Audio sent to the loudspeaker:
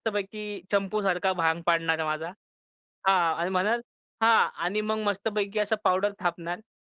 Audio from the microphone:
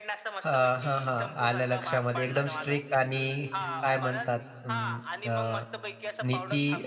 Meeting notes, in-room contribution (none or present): present